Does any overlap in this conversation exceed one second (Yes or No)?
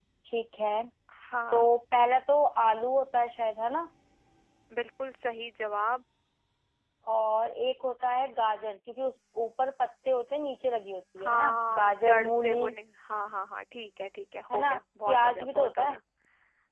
Yes